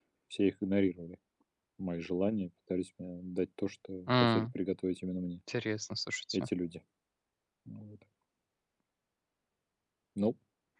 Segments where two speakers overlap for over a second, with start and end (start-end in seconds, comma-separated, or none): none